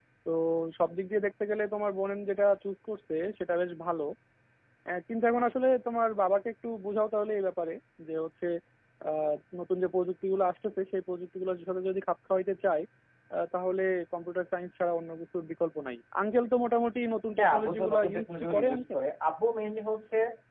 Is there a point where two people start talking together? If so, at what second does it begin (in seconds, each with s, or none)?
17.4 s